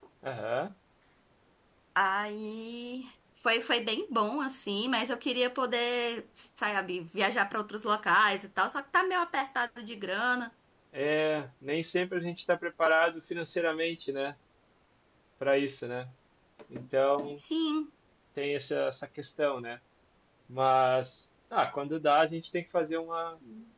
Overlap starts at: none

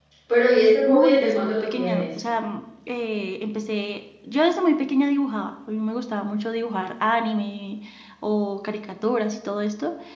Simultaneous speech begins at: 0.9 s

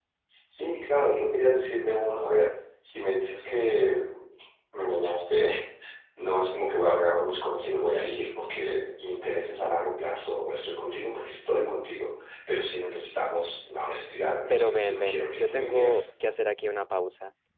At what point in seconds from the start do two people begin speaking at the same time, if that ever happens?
14.5 s

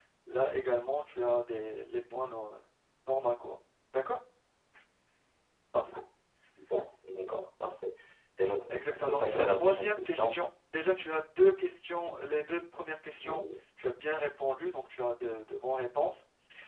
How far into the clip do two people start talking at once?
8.7 s

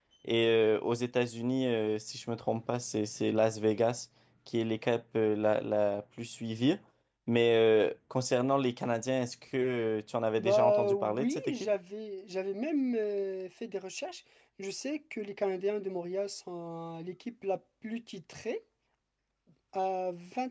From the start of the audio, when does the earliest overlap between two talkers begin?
10.4 s

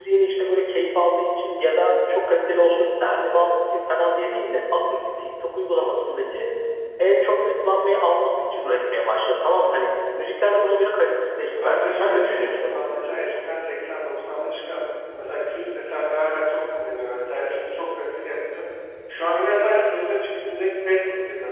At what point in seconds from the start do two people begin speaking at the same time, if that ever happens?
11.5 s

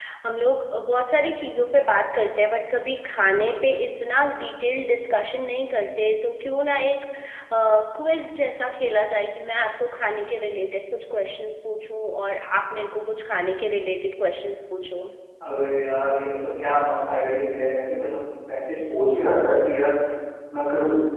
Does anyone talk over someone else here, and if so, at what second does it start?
none

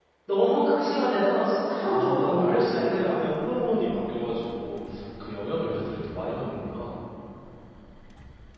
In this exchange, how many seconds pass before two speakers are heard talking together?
1.8 s

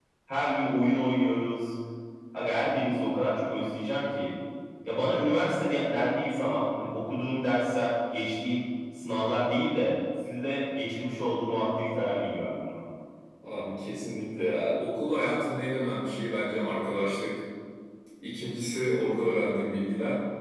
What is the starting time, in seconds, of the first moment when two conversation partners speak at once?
none

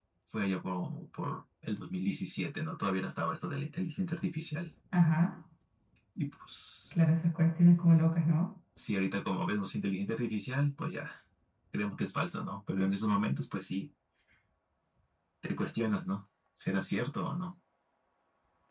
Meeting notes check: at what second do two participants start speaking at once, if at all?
none

